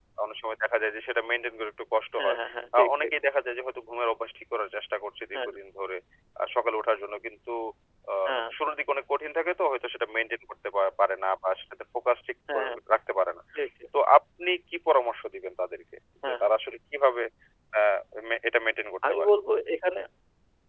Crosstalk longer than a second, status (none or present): none